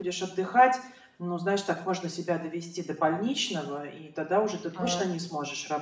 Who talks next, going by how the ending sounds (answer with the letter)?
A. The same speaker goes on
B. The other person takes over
A